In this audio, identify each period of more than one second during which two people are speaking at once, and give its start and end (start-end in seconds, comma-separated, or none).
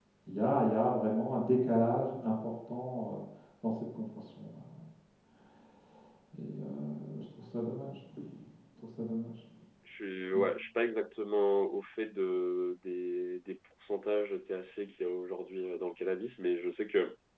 none